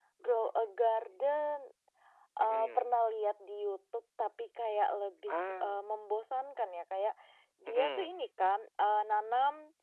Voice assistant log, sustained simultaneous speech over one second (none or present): none